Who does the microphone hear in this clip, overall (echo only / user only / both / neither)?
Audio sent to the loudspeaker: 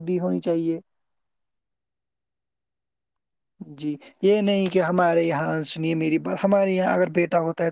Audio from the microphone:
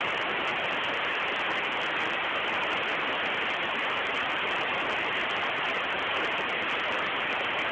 neither